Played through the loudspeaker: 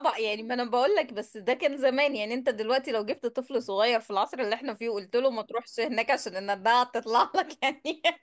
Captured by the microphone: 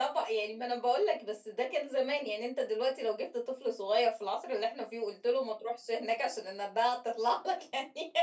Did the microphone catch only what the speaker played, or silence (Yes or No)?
Yes